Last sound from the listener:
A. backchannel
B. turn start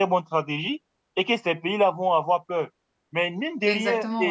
A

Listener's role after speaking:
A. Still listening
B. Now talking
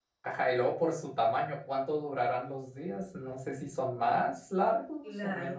A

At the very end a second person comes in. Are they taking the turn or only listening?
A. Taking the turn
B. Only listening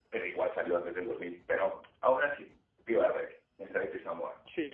A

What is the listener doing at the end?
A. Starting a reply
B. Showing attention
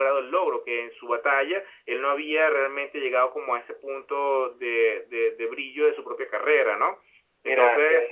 A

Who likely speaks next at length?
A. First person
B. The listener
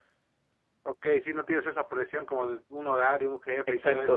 B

